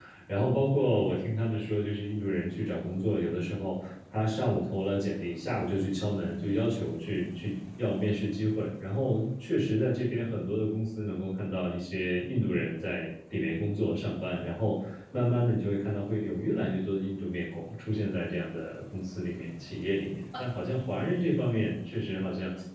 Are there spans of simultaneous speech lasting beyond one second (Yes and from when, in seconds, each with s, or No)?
No